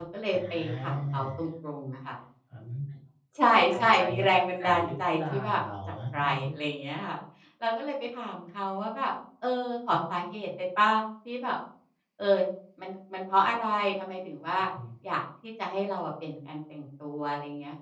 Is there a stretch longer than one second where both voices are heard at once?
Yes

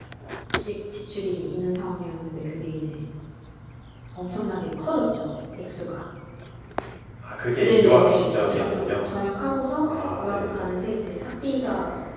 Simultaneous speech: Yes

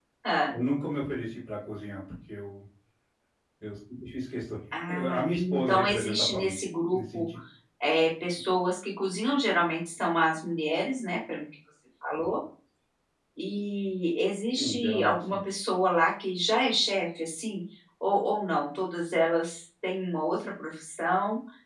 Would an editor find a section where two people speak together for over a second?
Yes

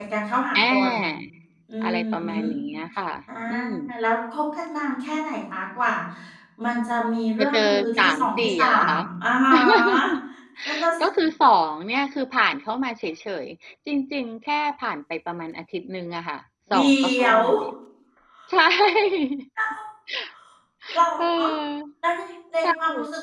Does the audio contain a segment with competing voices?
Yes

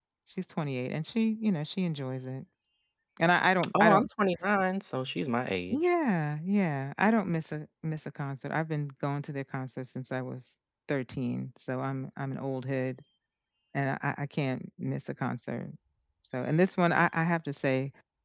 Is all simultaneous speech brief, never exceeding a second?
Yes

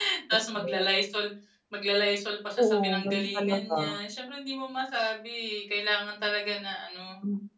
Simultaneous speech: Yes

